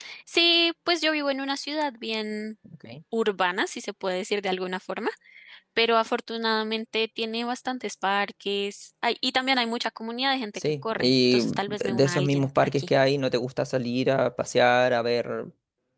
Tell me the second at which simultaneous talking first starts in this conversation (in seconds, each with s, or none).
10.6 s